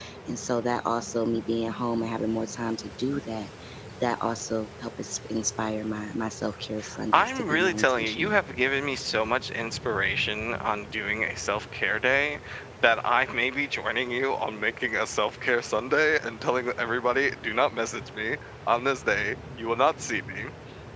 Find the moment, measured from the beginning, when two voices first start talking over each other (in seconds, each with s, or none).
7.1 s